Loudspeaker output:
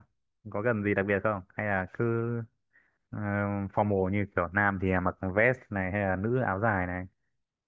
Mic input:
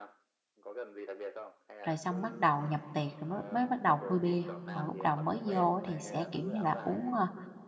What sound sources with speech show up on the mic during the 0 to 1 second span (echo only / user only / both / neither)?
echo only